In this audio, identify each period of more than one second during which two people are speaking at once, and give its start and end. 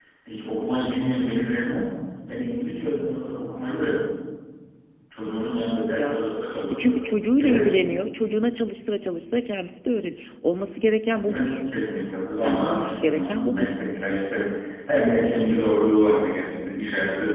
12.4-13.7

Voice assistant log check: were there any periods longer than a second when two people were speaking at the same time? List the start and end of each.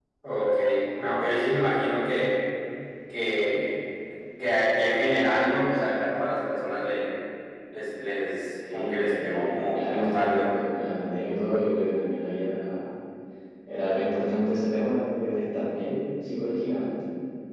8.7-10.4

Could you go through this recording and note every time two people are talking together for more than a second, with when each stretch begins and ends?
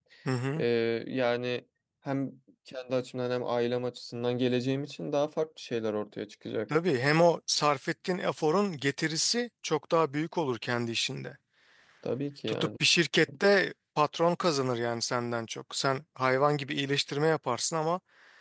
none

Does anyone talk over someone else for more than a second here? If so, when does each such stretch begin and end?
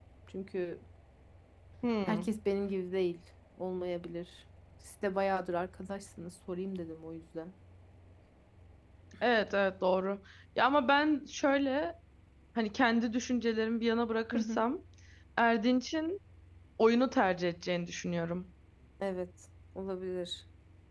none

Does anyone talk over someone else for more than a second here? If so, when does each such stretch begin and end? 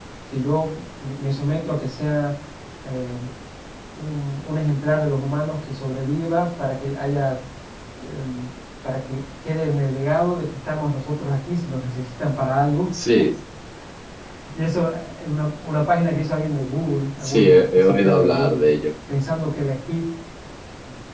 17.2-18.6

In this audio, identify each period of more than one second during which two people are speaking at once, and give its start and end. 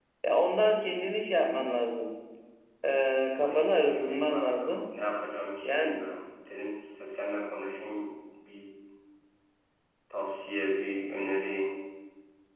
3.4-4.8

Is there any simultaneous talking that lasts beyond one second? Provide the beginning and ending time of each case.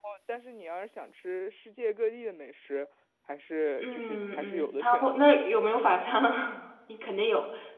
3.8-5.2

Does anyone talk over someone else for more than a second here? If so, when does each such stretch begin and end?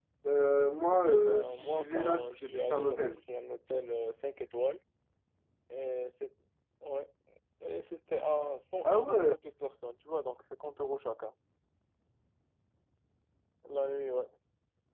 0.9-3.1

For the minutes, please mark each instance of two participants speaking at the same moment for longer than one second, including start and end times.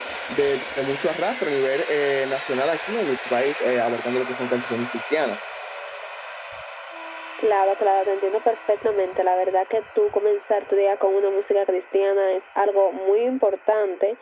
none

